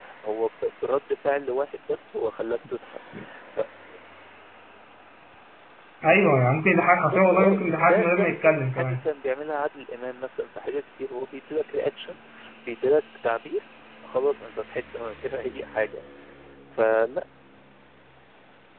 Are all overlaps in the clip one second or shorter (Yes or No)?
No